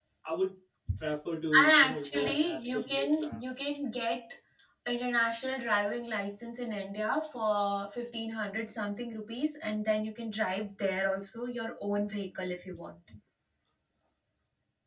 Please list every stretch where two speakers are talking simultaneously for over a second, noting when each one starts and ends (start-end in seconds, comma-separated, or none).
1.6-3.4